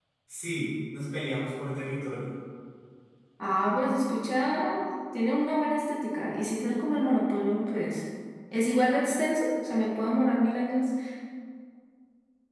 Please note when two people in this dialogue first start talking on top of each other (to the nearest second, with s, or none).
none